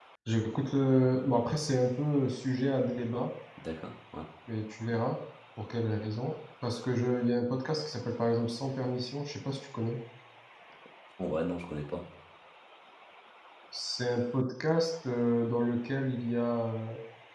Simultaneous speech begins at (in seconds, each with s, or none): none